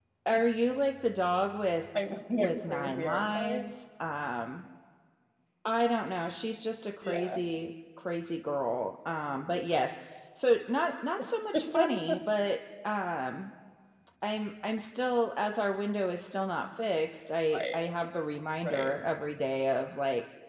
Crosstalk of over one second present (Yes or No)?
Yes